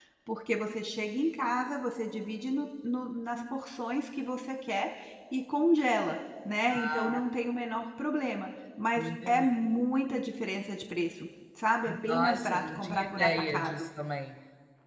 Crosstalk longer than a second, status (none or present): present